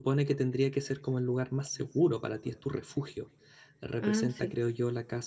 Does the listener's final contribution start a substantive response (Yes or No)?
No